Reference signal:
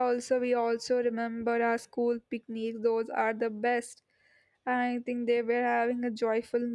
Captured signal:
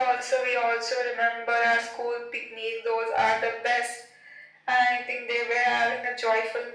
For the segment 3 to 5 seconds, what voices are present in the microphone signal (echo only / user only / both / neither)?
echo only